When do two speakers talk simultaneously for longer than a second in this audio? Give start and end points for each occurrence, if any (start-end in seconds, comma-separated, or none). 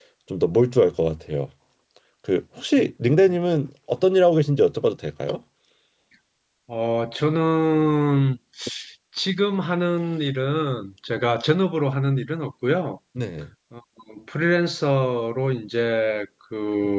none